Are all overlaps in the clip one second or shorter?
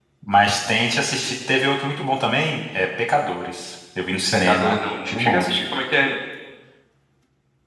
No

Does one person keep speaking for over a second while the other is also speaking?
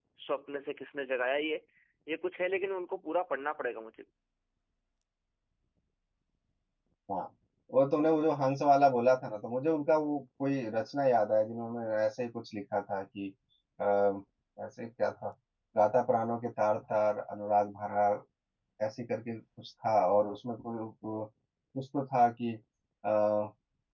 No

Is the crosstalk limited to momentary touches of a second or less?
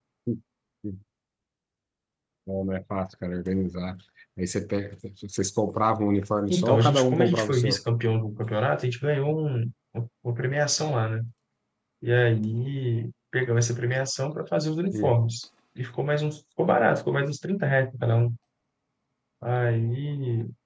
No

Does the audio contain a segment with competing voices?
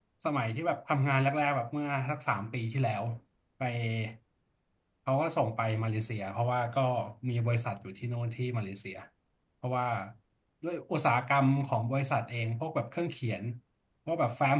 No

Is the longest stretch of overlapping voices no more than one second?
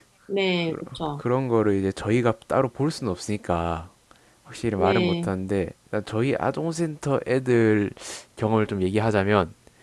Yes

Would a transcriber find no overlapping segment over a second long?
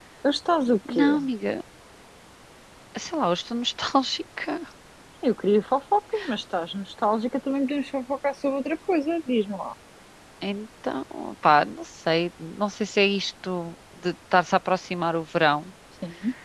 Yes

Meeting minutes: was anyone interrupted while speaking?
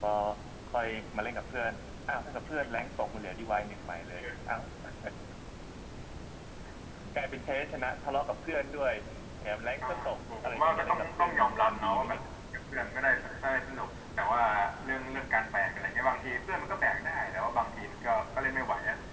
Yes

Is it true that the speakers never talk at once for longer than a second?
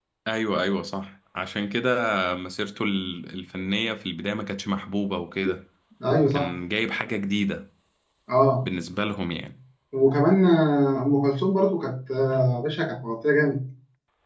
Yes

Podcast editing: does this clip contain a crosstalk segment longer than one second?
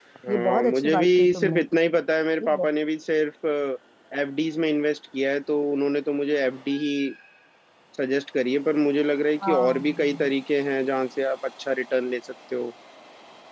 Yes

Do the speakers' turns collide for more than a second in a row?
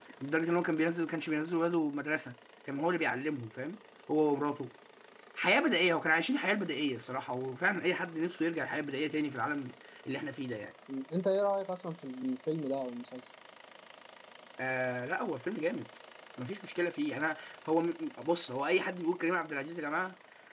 No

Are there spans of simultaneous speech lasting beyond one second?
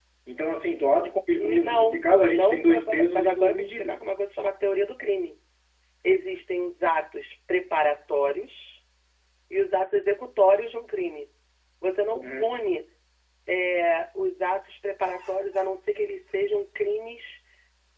Yes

